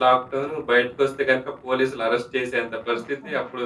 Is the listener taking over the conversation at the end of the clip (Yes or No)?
No